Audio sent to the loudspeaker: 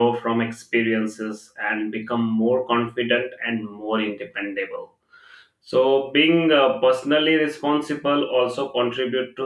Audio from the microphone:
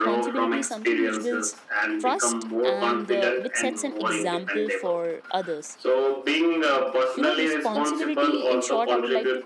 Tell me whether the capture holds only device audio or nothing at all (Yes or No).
No